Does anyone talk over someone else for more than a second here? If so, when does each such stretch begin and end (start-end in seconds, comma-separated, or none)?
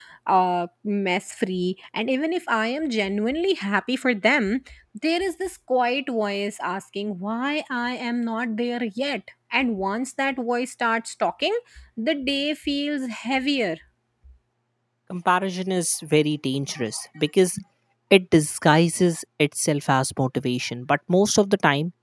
none